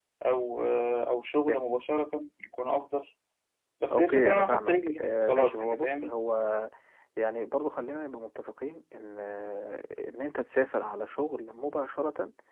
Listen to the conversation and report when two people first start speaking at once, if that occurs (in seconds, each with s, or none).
3.9 s